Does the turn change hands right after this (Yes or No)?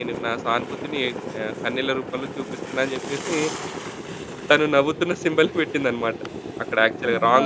No